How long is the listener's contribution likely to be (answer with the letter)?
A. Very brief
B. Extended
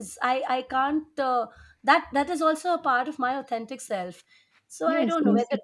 B